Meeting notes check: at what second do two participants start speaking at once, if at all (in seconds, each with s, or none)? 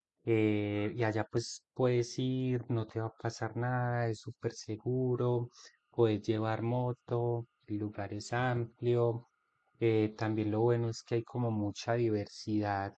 none